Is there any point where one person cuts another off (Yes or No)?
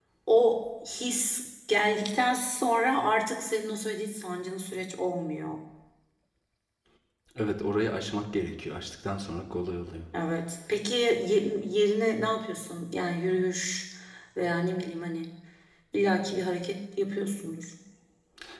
No